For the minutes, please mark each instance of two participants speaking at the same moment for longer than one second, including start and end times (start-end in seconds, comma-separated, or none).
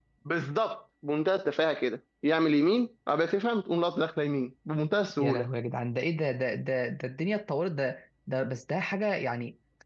none